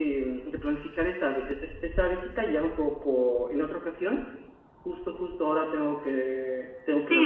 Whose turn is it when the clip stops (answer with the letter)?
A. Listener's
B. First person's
A